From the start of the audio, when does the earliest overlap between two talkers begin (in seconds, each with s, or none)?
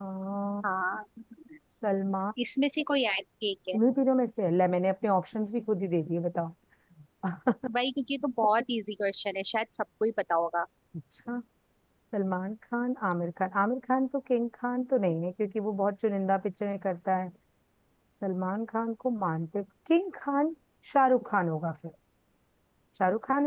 none